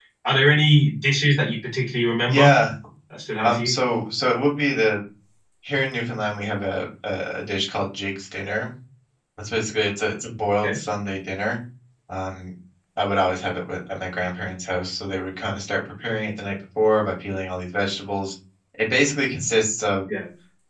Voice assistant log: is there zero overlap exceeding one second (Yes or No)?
Yes